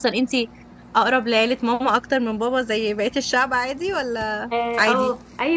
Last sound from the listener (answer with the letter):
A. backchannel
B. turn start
B